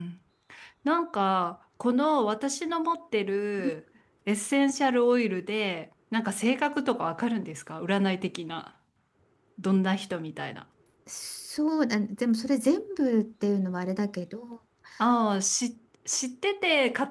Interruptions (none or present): none